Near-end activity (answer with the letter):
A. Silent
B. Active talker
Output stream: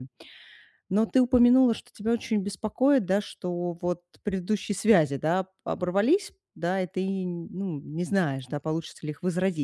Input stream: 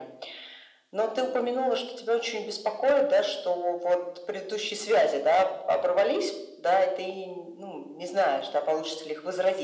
A